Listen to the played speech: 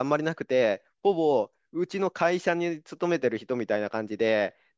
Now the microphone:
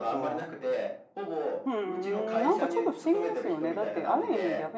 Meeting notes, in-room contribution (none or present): present